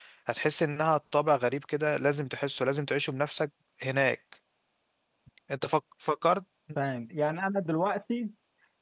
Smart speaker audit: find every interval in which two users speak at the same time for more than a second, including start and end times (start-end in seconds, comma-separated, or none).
none